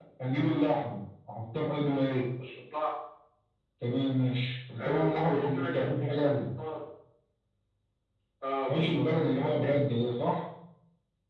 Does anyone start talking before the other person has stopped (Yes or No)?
Yes